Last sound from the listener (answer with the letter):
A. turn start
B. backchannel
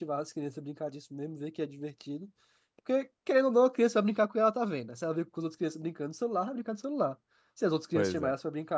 B